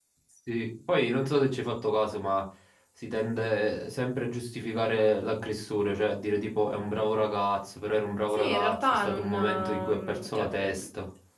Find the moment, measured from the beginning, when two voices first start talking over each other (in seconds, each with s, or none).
8.3 s